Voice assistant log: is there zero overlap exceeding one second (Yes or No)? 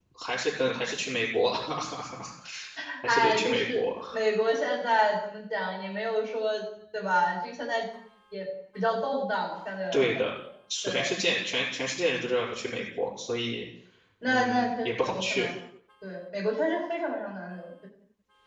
No